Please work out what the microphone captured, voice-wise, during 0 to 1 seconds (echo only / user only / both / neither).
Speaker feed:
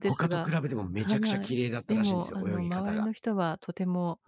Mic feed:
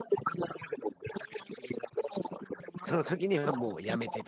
echo only